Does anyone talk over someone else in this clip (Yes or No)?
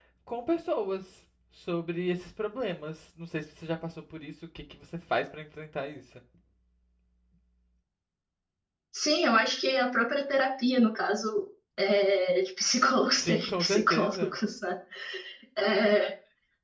Yes